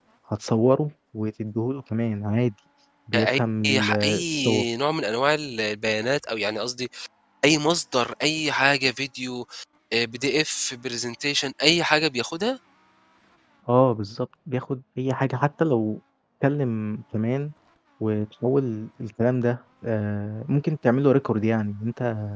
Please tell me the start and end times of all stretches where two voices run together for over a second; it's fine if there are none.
3.1-4.7

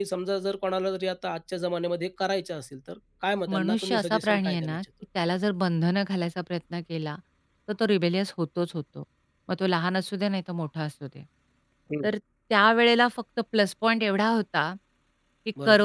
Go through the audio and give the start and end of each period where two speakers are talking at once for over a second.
3.5-4.8

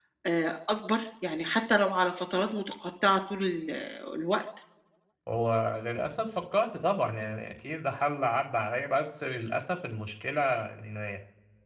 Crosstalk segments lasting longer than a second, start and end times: none

